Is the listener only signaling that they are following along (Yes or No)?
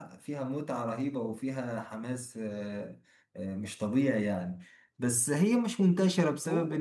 Yes